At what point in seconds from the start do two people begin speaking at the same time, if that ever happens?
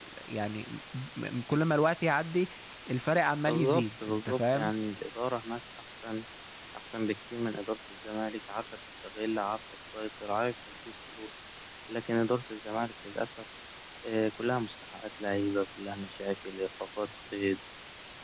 3.5 s

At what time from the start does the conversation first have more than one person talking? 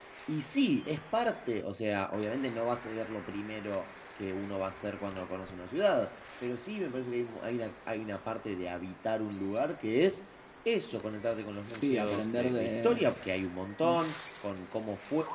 11.8 s

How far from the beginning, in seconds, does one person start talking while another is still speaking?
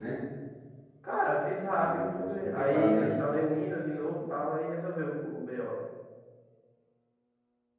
1.7 s

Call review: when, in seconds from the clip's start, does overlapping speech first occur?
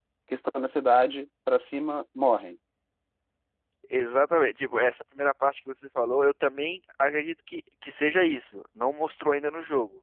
none

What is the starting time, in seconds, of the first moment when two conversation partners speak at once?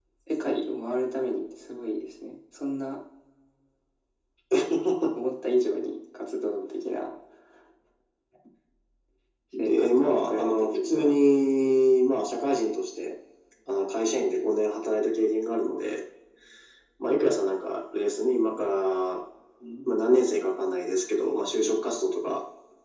9.6 s

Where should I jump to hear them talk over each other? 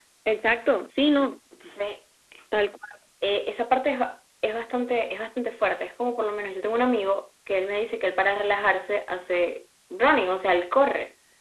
none

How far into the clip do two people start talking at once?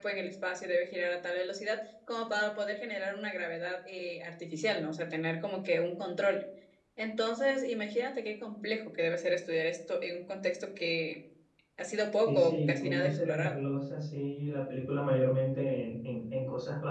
12.3 s

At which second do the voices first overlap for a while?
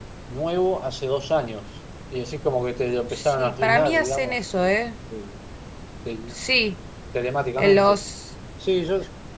3.1 s

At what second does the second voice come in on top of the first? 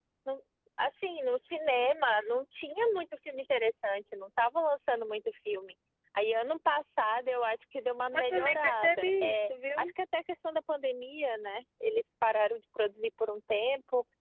8.1 s

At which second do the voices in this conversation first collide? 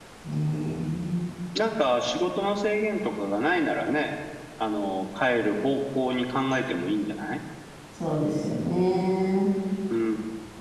none

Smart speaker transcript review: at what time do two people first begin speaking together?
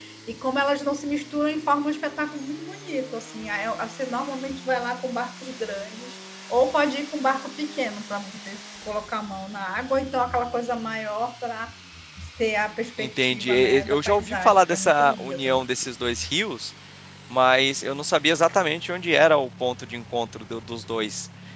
13.0 s

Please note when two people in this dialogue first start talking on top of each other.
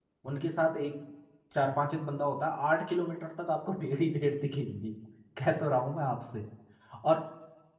none

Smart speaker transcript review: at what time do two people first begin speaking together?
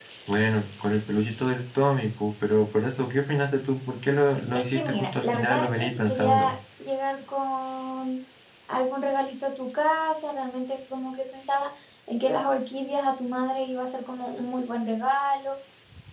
4.5 s

